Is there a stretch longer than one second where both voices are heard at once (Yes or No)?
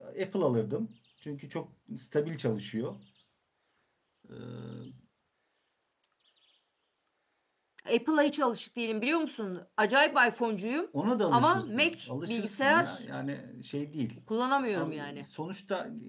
Yes